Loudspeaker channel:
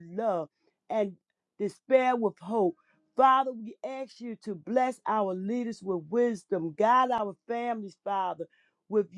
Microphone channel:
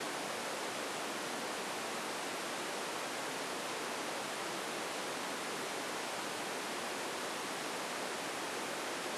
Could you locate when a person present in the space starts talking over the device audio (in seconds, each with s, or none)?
none